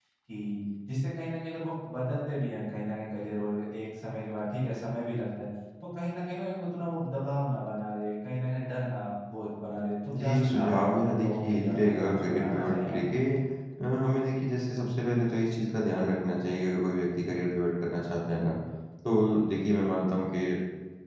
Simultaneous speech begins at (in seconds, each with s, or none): 10.1 s